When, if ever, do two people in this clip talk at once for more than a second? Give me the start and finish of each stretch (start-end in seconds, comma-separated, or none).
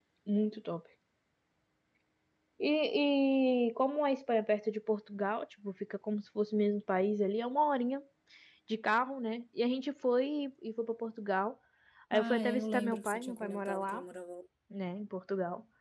12.1-14.0